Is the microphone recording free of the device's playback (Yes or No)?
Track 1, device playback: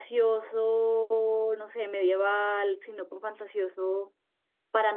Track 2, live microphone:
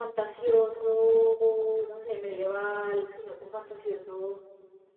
No